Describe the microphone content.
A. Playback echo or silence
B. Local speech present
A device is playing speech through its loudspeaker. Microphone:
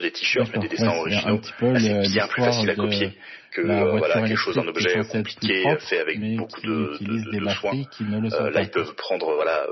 B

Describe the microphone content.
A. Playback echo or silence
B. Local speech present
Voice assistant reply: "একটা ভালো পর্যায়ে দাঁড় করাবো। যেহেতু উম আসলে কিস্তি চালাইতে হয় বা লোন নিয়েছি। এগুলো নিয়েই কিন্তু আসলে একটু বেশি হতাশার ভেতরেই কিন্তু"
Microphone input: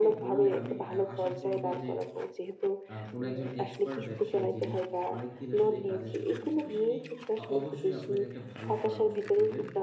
B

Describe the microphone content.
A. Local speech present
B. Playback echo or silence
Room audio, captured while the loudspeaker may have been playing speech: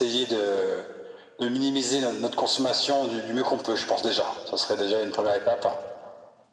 B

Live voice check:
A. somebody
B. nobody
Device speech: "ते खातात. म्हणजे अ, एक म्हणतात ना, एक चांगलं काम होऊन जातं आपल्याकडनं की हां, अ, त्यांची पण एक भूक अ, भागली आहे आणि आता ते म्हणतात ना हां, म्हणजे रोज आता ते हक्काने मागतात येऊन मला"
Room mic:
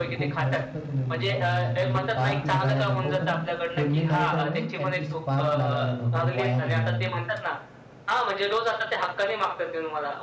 A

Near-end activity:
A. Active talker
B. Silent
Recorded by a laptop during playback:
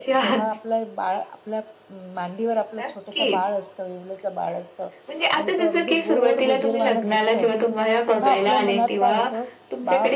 A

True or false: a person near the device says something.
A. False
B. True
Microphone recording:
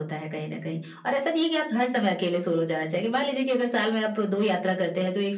A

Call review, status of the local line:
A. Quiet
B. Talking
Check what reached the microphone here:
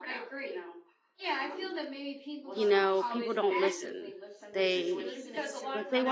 B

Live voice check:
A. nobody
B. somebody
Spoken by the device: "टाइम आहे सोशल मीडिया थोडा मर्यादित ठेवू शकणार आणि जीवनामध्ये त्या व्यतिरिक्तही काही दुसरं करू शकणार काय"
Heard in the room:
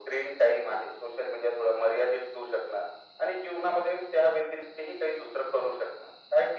A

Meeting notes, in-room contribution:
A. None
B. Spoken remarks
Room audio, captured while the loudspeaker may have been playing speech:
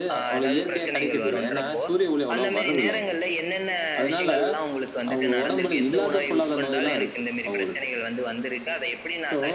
B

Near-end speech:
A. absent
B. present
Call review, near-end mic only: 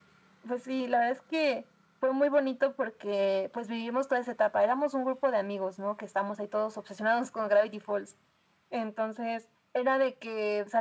A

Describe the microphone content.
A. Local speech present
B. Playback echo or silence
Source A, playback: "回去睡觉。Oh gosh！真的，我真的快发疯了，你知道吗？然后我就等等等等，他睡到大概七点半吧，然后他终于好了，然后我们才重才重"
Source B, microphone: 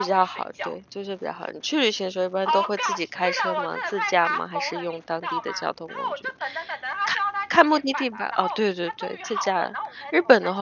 A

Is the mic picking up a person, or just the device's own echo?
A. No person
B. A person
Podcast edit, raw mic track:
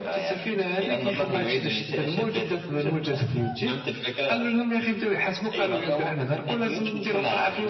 A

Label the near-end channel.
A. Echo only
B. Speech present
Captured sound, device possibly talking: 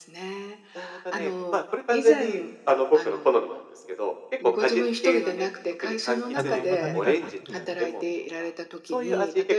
B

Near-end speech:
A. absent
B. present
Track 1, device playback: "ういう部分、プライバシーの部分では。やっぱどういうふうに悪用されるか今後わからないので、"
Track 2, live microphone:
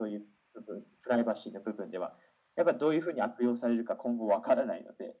A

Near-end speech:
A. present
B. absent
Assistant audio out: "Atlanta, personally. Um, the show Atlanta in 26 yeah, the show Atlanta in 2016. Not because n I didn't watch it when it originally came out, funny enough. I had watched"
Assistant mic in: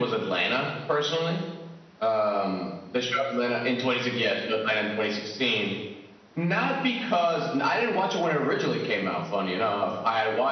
B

